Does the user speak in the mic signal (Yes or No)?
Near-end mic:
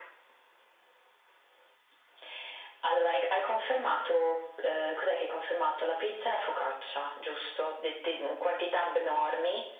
No